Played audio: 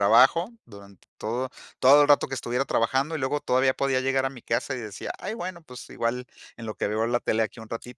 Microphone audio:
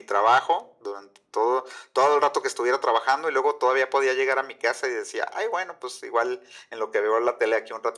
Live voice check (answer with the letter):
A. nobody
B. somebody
A